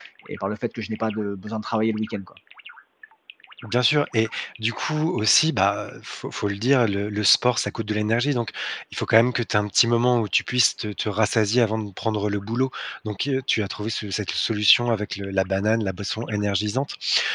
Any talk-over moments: No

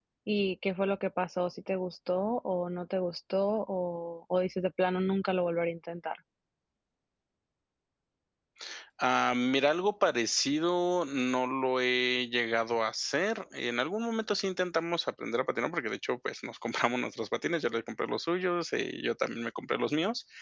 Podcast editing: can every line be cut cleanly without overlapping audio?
Yes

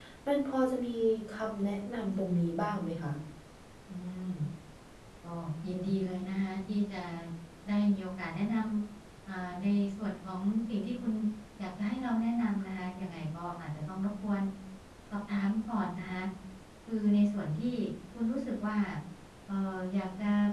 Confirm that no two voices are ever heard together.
Yes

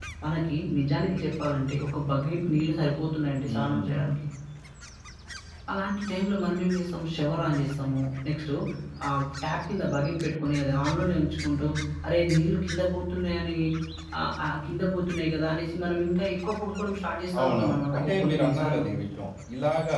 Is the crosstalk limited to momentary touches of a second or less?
No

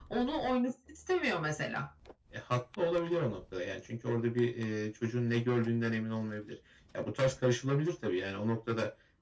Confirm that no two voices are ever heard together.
Yes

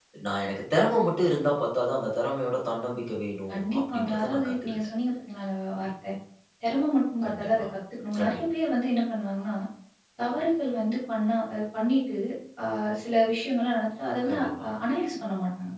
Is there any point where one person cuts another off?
Yes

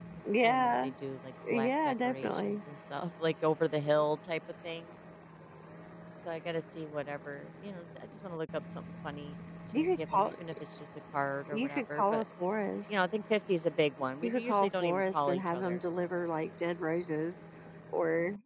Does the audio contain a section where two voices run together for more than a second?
Yes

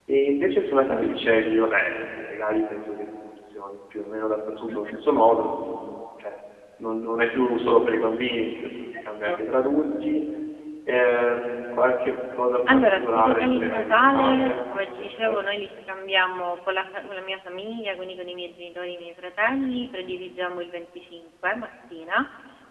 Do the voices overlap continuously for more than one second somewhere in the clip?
Yes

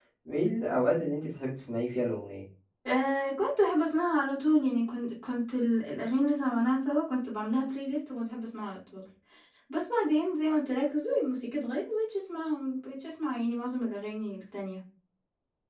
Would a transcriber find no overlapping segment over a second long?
Yes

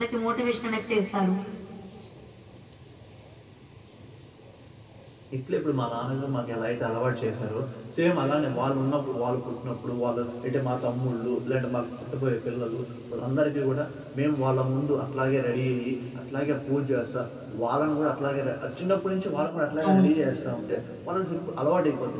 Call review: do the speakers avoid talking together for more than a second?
Yes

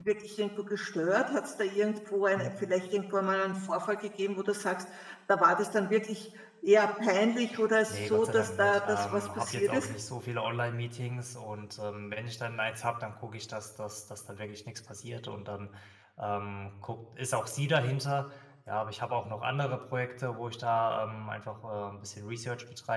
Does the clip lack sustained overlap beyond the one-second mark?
No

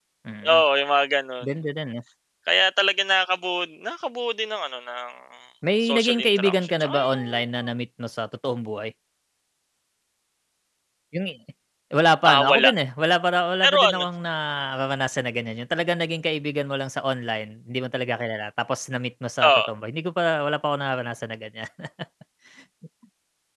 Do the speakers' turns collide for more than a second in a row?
Yes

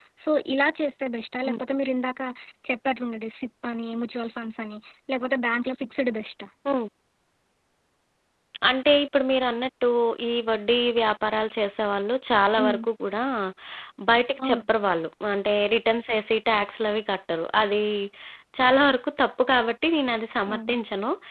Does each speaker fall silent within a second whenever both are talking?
Yes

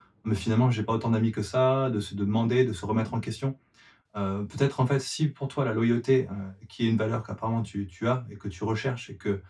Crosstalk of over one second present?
No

